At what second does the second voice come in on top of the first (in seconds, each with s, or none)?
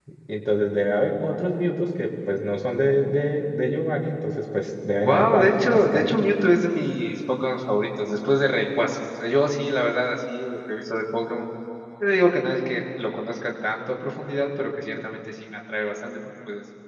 4.9 s